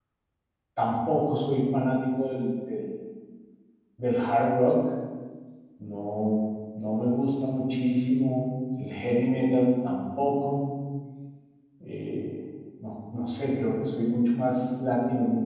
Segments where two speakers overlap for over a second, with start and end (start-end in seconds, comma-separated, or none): none